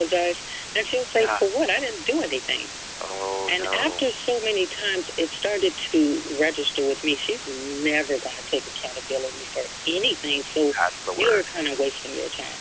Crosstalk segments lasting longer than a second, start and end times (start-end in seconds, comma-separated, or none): none